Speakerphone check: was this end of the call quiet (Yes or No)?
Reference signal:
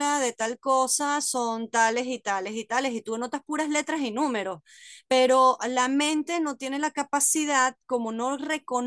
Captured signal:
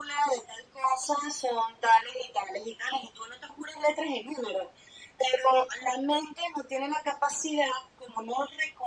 Yes